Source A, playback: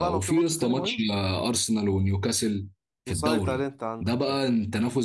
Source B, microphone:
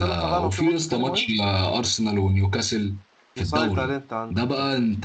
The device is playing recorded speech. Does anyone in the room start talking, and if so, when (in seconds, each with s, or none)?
none